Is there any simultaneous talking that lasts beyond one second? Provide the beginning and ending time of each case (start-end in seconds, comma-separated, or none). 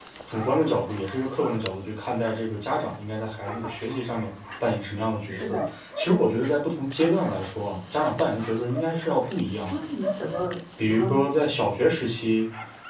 none